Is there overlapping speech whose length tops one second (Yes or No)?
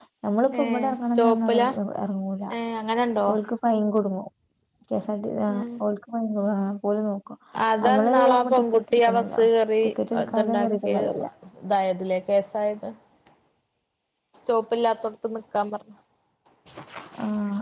Yes